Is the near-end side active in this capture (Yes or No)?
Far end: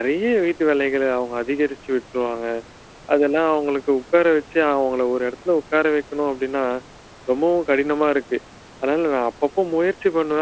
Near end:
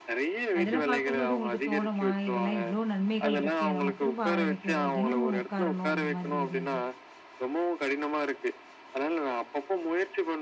Yes